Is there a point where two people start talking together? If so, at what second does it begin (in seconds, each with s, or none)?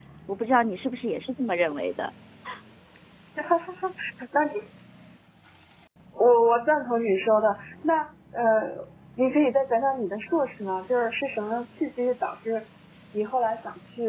none